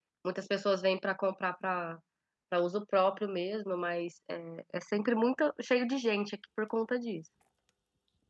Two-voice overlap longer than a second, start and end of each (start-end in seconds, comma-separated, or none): none